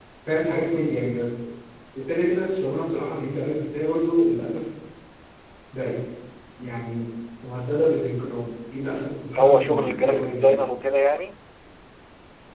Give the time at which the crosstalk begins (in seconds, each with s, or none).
9.3 s